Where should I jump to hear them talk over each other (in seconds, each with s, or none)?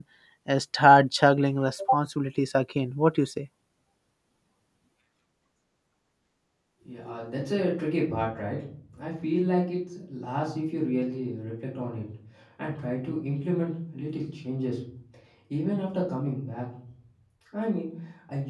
none